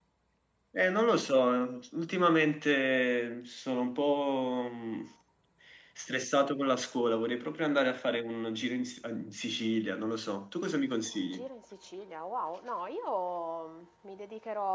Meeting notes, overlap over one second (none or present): none